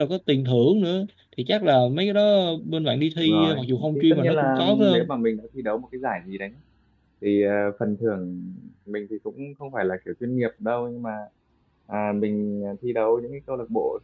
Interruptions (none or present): present